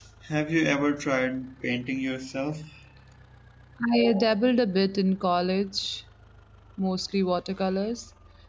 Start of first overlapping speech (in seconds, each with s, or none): none